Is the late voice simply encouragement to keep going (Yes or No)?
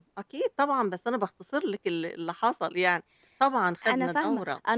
No